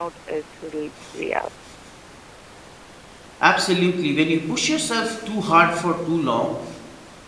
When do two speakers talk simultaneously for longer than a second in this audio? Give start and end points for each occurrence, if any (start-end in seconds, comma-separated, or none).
none